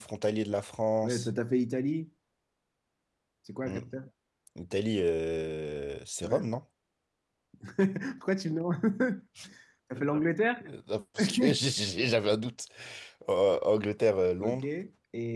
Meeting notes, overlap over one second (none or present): none